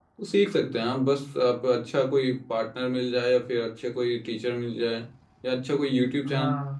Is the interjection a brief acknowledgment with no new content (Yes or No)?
Yes